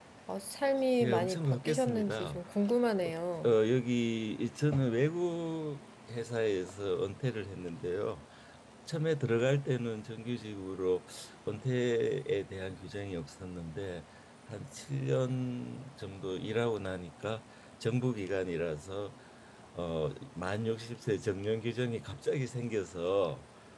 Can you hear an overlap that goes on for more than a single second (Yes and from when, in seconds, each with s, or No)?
Yes, from 1.0 s